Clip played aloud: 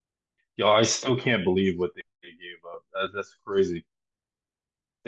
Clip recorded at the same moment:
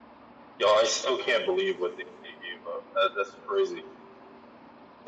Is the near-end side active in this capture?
No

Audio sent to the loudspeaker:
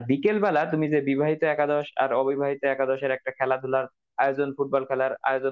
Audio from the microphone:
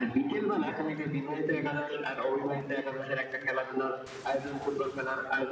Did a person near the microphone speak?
No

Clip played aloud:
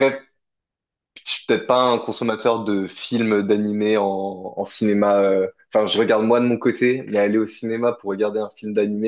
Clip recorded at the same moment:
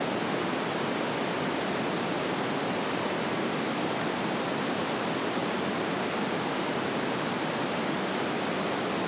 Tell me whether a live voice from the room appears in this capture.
No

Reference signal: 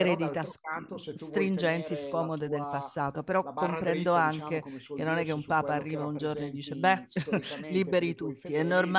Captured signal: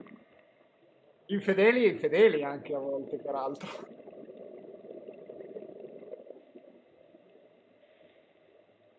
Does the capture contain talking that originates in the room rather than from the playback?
Yes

